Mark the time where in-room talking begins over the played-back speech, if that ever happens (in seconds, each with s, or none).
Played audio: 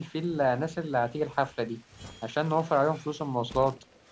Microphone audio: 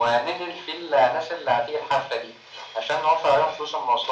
none